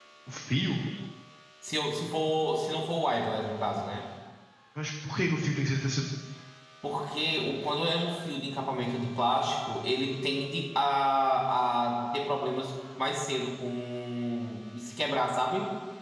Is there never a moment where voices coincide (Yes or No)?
Yes